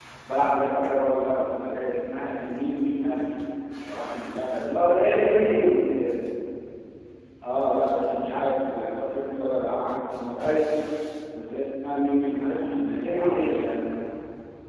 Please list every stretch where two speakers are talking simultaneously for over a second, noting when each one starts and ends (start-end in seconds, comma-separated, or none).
none